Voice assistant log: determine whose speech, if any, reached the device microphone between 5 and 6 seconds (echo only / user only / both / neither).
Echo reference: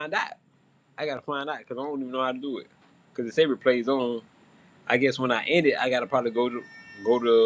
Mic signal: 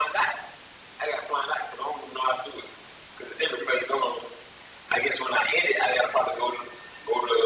echo only